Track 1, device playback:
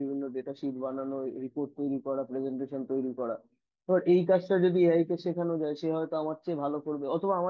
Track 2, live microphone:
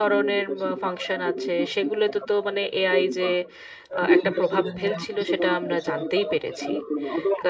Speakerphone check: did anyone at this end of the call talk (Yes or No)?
Yes